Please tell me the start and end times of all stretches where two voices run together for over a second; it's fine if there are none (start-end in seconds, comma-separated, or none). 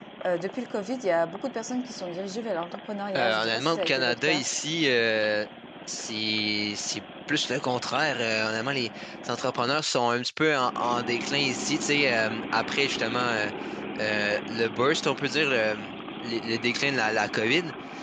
3.2-4.4